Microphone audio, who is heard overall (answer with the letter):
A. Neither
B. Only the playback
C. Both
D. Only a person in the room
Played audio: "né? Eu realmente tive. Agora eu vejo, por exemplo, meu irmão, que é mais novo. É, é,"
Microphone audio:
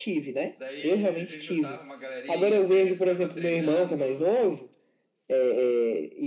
C